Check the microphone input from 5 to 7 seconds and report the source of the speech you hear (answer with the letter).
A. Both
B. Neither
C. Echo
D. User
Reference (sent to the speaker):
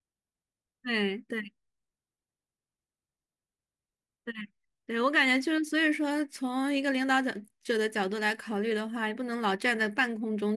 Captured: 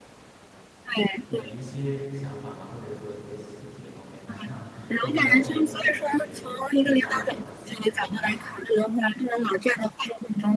A